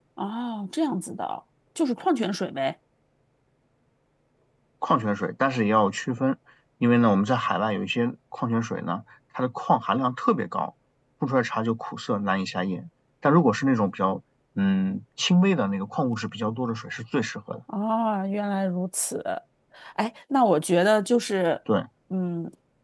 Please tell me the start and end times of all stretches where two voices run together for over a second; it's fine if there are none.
none

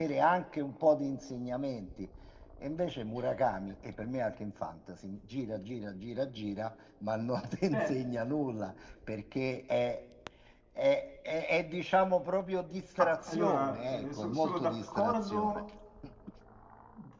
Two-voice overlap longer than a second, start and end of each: 13.0-15.6

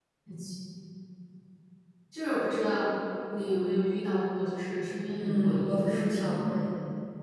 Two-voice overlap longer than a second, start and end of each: 5.1-6.5

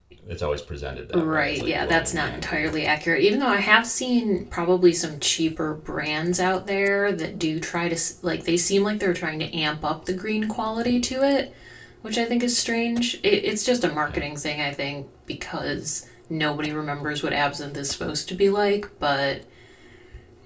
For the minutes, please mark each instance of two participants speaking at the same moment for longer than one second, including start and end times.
1.1-2.7

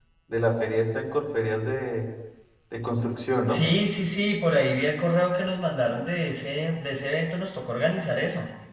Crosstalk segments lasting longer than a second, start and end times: none

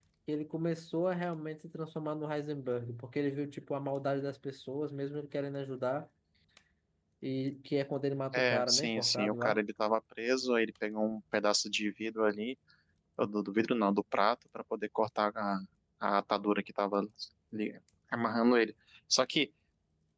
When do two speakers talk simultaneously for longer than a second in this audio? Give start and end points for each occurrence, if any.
8.3-9.6

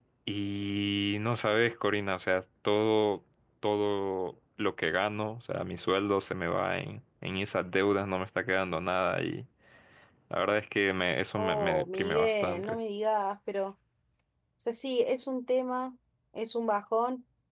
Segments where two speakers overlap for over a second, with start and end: 11.4-12.8

